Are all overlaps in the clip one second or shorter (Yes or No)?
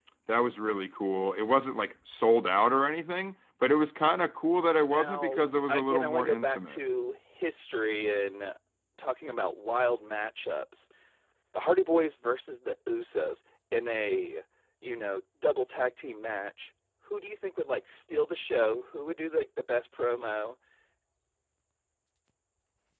No